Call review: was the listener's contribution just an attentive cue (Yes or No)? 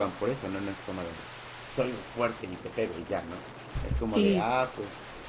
Yes